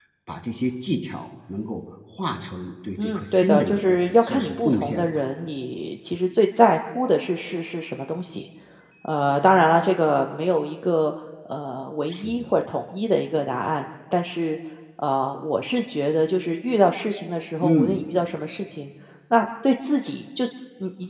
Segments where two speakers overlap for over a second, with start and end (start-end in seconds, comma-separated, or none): 3.0-5.1